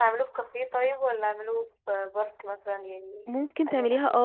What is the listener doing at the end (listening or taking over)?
taking over